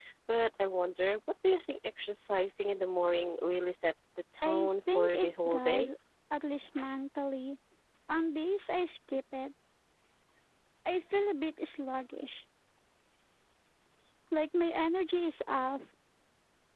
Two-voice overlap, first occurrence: 4.4 s

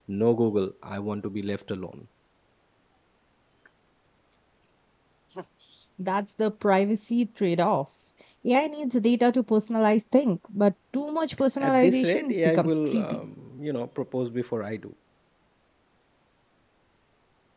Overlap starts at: 11.6 s

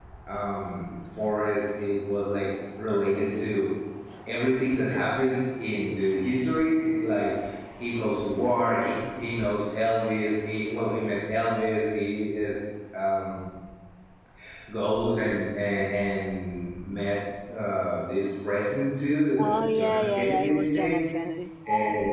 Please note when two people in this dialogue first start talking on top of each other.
19.4 s

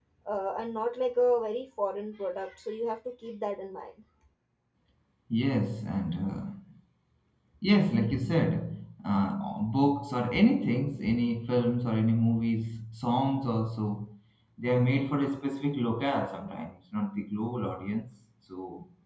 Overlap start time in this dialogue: none

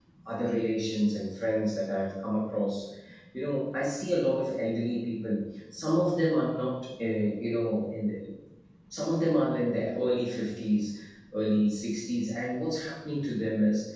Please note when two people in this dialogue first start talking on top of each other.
none

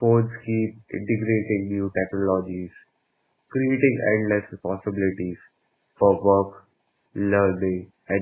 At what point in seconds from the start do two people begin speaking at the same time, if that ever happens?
none

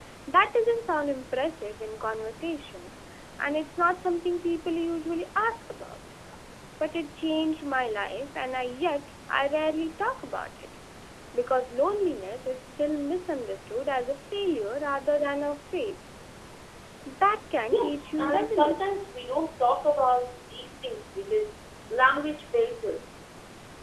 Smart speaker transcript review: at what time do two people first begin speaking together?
17.7 s

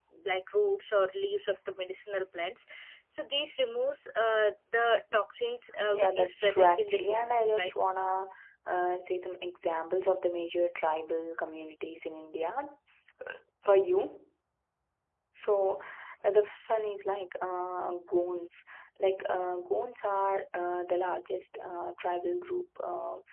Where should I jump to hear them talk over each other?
5.9 s

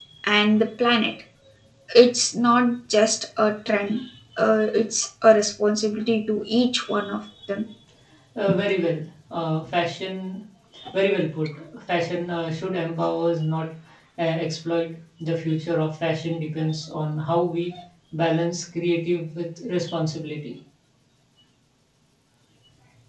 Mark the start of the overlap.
none

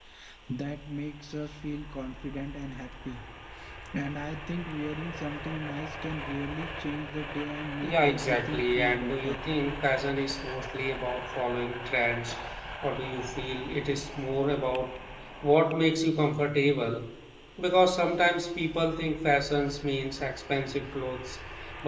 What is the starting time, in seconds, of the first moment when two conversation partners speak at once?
7.8 s

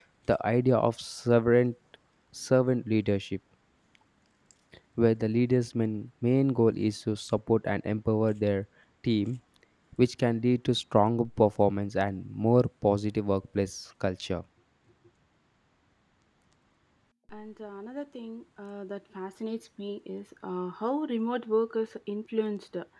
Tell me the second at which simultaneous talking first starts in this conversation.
none

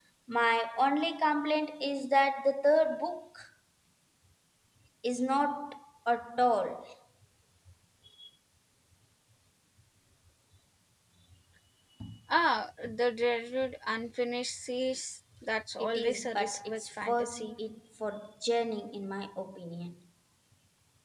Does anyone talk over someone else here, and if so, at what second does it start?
15.8 s

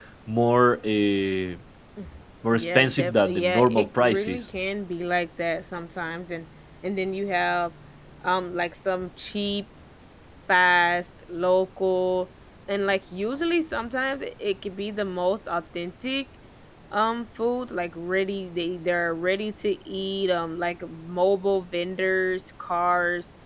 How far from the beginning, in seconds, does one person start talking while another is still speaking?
2.6 s

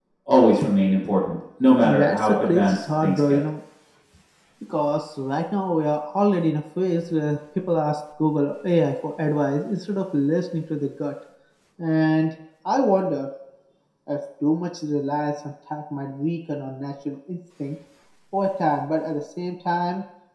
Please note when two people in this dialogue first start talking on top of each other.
1.8 s

